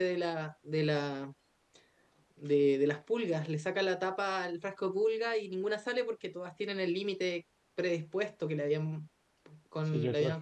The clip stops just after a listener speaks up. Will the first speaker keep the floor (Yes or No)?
No